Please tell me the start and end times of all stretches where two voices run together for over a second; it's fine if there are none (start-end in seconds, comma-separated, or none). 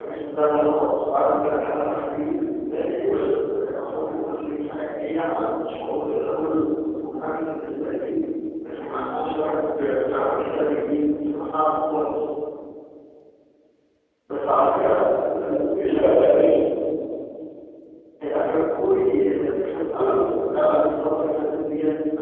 14.8-16.2